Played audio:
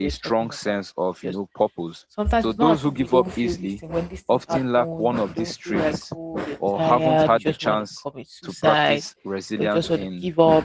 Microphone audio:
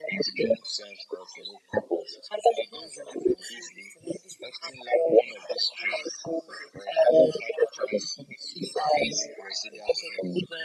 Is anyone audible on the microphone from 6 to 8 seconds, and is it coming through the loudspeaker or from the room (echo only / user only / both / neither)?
echo only